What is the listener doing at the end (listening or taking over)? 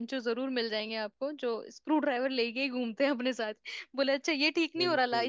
listening